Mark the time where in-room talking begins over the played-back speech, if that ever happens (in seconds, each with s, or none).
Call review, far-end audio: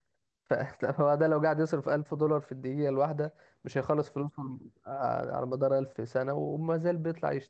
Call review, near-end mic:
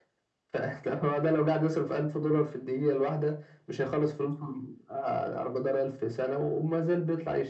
none